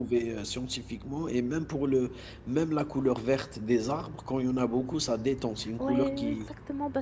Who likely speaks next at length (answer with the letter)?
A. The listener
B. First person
A